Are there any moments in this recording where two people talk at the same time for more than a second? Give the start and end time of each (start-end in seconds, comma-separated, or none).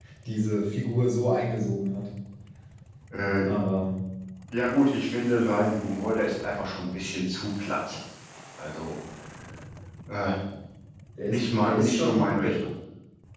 11.2-12.6